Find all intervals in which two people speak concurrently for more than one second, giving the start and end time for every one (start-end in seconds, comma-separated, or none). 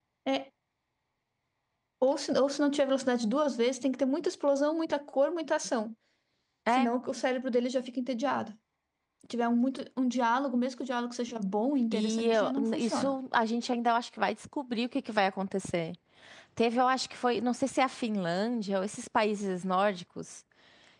11.9-13.1